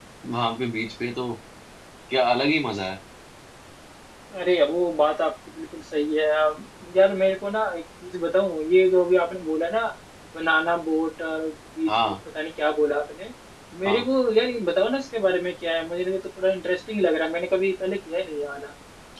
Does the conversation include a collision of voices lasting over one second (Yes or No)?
No